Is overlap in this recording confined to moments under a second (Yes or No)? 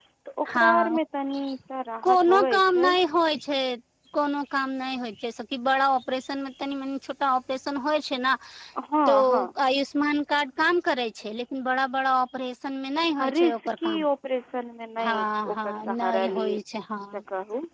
No